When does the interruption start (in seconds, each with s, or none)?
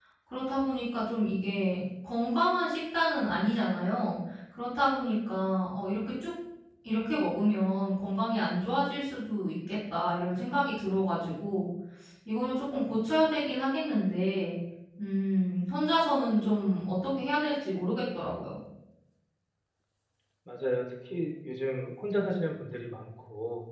none